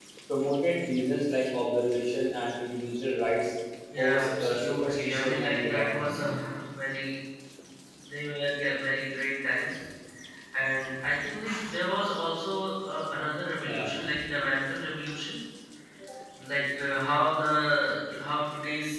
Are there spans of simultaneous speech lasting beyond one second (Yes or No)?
Yes